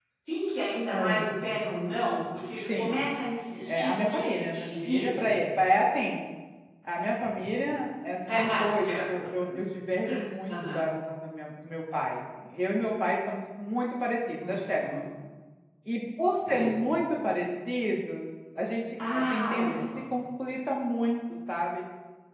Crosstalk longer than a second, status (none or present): present